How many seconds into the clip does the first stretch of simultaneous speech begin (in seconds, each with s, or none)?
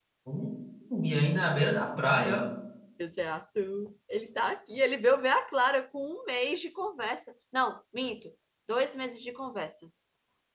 none